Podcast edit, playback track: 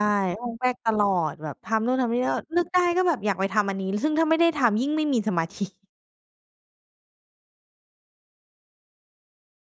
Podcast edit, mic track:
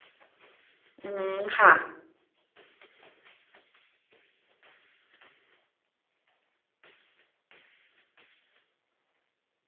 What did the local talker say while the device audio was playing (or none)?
อือฮึ ค่ะ